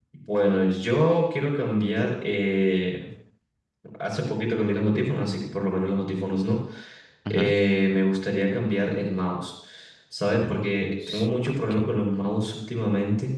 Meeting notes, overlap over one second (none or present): present